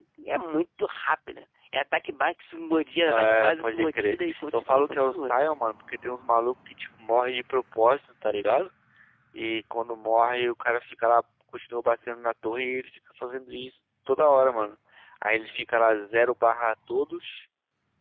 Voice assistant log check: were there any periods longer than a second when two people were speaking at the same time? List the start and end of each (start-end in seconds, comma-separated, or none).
3.1-5.3